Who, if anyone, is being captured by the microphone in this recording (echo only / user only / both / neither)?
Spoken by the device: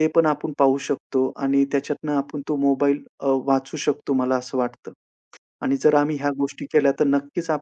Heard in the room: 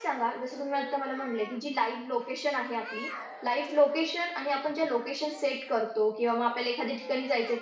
user only